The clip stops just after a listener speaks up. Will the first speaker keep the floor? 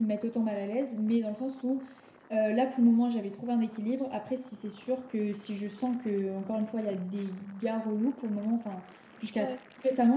Yes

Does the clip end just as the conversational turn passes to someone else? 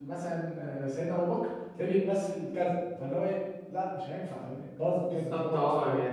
Yes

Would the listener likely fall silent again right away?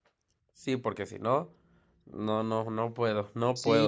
No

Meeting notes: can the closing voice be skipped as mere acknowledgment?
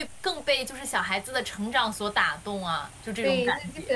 No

